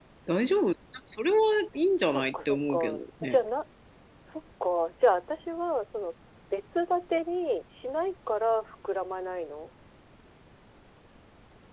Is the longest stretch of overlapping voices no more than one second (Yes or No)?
No